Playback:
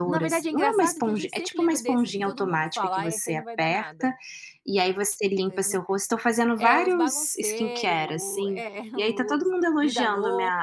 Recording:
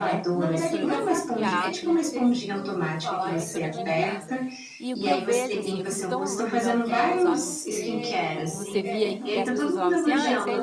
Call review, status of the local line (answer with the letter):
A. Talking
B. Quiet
A